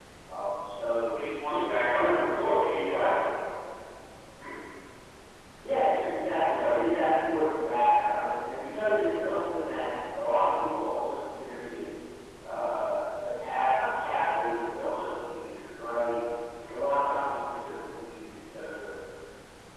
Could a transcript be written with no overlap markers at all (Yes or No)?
No